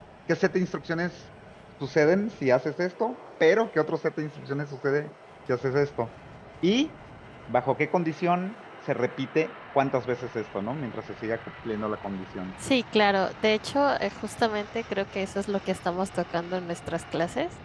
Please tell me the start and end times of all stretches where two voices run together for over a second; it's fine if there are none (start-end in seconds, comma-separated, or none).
none